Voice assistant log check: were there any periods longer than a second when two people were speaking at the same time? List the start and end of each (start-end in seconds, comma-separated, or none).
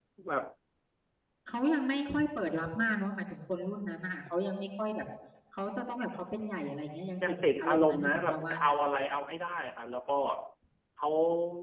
7.3-8.7